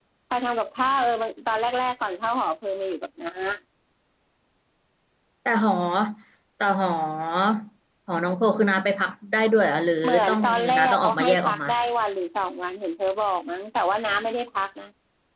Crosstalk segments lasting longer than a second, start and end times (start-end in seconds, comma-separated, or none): 10.0-11.7